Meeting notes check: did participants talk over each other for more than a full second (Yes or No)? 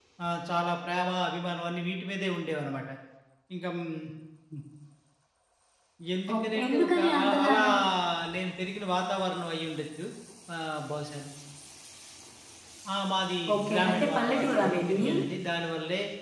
Yes